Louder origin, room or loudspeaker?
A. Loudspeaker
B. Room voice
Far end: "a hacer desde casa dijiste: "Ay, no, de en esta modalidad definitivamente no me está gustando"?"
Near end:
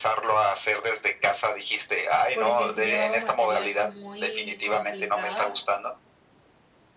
A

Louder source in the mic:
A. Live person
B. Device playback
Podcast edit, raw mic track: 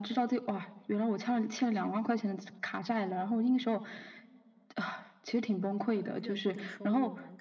B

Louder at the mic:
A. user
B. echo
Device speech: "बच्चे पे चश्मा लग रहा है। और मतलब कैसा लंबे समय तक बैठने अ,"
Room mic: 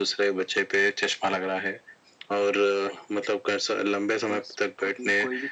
B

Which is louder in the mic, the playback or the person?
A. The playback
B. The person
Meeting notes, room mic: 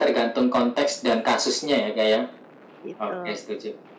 A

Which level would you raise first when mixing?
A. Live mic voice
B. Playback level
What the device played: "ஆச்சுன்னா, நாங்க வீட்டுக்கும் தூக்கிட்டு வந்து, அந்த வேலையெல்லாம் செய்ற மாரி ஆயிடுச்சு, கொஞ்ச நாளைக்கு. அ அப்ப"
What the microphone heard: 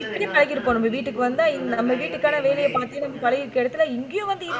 B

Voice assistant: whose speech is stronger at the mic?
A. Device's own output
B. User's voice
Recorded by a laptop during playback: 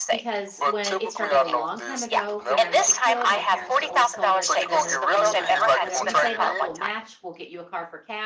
A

